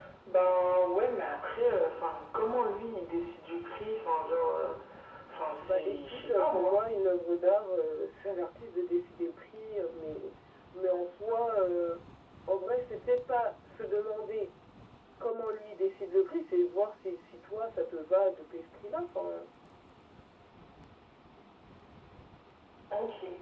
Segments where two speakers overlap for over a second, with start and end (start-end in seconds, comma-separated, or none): 5.6-6.8